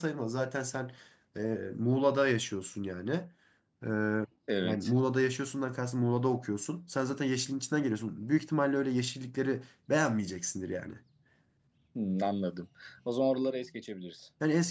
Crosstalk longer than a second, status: none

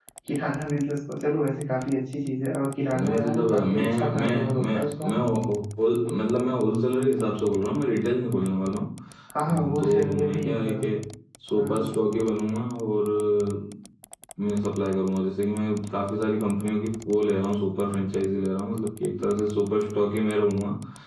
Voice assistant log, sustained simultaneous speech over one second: present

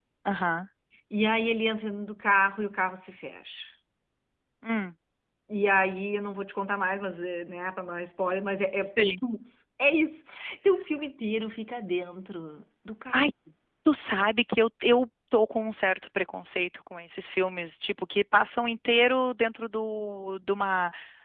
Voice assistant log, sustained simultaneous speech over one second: none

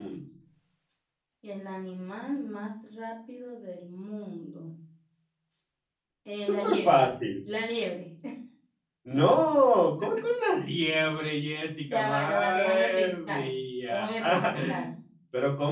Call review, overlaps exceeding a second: present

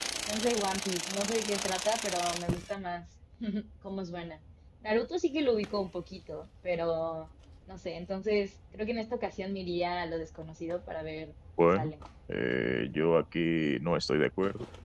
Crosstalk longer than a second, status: none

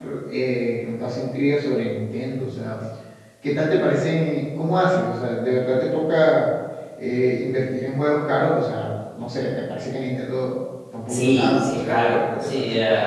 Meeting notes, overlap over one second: present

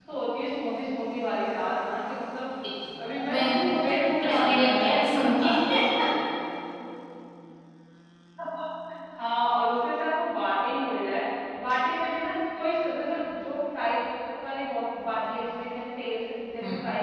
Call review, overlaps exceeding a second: present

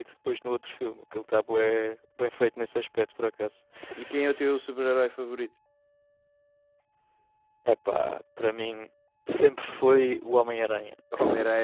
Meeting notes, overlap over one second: none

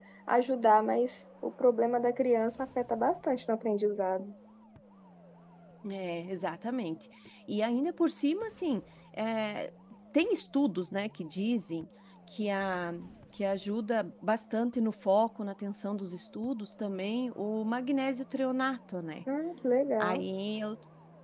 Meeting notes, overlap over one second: none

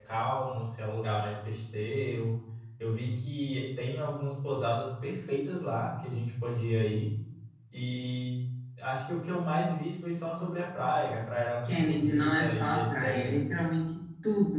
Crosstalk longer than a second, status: present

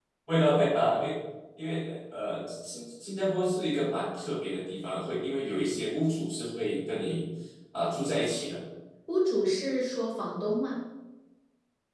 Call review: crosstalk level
none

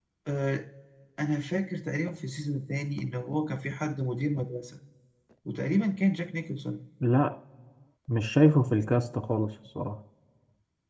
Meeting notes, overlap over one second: none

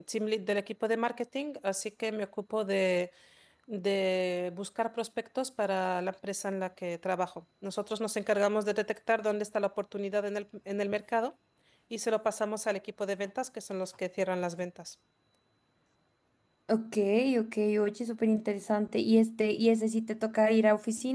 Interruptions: none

